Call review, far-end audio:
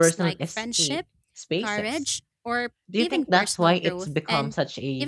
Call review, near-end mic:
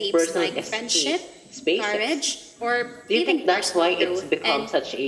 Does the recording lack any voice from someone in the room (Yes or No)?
Yes